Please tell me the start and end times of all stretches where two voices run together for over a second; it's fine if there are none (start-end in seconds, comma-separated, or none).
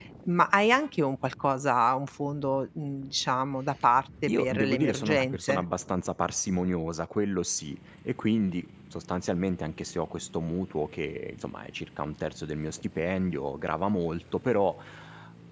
4.3-5.6